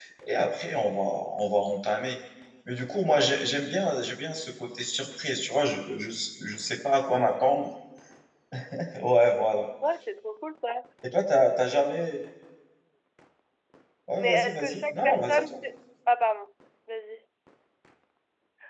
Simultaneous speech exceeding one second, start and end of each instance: 14.2-15.6

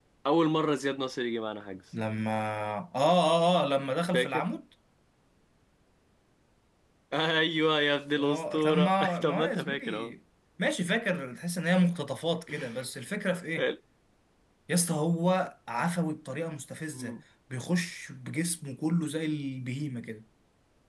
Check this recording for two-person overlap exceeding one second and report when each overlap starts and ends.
8.2-10.1

